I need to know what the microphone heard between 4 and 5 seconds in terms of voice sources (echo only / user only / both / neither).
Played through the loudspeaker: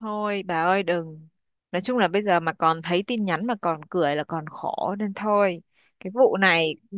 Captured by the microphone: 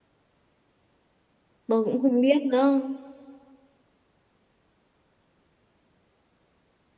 neither